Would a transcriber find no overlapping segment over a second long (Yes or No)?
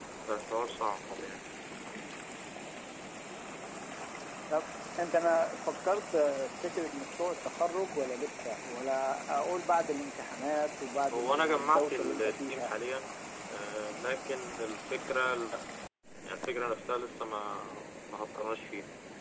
No